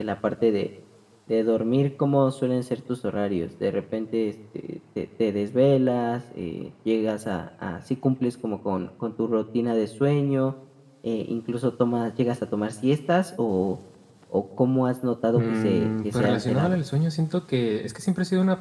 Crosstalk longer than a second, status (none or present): present